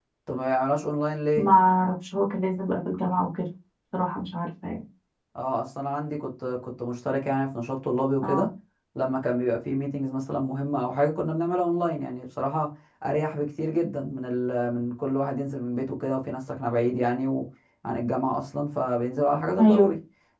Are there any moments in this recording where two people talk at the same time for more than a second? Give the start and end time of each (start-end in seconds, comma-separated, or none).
none